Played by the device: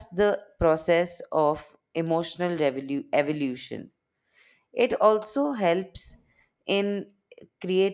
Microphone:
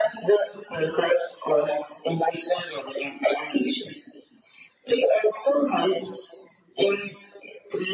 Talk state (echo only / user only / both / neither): echo only